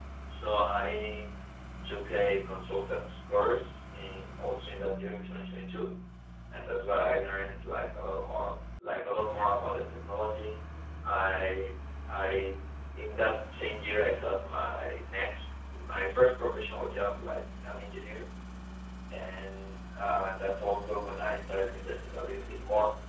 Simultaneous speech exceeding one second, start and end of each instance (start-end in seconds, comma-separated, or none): none